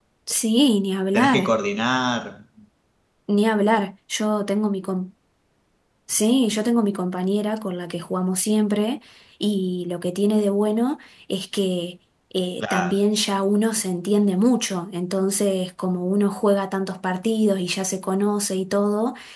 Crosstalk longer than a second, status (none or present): none